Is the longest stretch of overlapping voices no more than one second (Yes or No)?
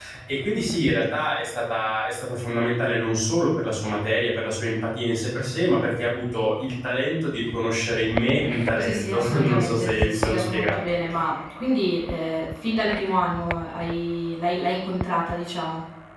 No